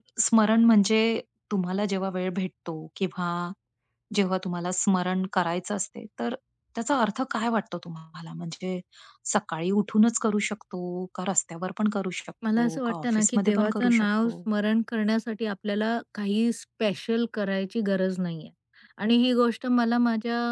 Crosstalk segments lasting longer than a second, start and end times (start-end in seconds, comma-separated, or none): 12.6-14.3